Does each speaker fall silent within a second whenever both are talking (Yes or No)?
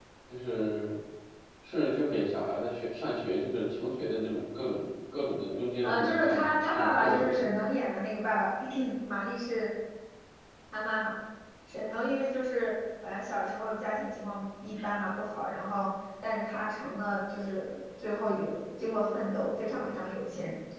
No